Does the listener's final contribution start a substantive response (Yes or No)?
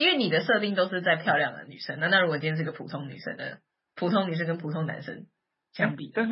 Yes